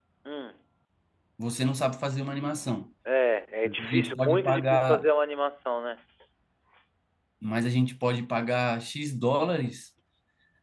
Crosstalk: present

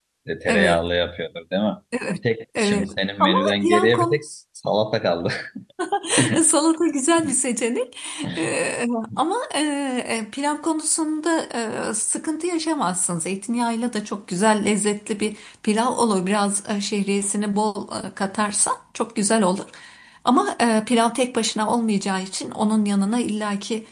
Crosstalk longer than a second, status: present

